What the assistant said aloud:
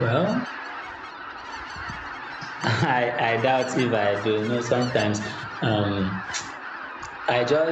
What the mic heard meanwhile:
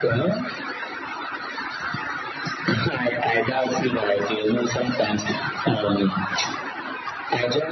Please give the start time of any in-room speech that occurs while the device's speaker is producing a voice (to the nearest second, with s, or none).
none